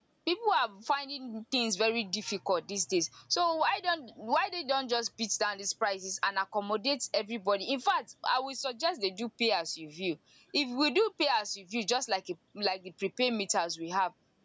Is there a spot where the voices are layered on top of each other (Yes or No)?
No